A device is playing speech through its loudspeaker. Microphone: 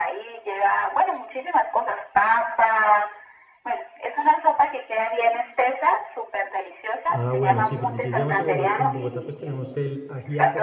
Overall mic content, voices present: both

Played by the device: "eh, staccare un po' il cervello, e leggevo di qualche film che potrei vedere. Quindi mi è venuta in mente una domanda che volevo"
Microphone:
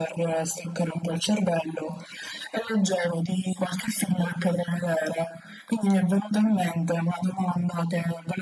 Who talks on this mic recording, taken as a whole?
echo only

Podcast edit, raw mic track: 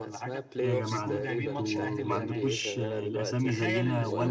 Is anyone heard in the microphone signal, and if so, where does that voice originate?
both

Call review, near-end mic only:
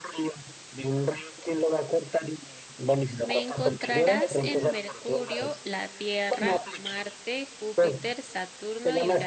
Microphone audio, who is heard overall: both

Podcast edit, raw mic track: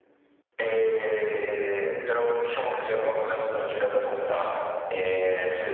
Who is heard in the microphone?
echo only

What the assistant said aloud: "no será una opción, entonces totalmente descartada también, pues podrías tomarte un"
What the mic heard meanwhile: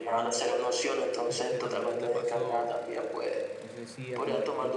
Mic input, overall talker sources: both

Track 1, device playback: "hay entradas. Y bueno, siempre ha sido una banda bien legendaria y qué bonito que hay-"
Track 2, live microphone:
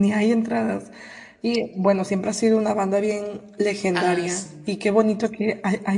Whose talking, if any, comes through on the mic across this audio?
both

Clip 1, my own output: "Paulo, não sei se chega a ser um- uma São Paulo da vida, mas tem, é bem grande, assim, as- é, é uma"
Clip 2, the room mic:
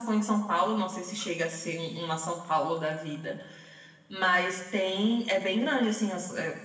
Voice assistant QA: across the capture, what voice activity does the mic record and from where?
echo only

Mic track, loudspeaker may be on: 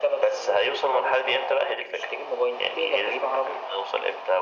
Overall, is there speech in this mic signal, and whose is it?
echo only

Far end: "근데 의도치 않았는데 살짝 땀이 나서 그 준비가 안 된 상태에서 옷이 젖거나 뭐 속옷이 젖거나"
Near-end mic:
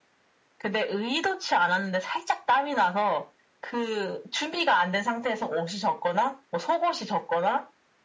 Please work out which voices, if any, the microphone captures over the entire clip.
echo only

